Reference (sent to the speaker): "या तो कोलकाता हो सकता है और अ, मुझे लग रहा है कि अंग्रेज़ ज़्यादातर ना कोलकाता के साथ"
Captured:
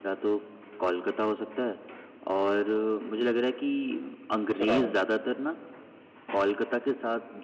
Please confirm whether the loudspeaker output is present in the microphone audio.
Yes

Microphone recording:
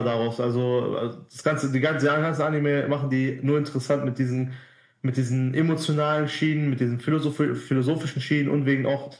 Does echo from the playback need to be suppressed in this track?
Yes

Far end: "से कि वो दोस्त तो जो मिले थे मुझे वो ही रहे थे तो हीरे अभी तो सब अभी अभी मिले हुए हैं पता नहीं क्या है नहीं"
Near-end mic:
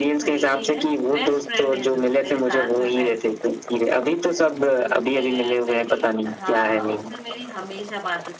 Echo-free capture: No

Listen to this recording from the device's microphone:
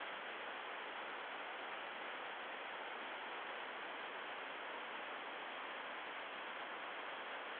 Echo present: No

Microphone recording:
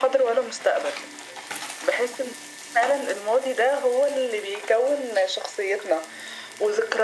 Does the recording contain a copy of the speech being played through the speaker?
Yes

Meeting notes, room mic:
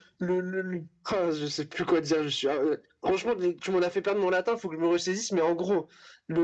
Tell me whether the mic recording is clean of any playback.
No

